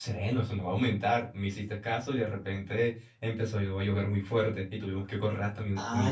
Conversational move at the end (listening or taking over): taking over